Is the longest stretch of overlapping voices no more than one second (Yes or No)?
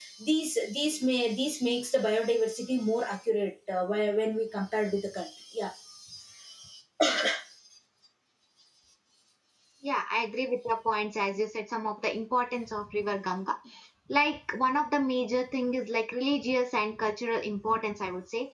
Yes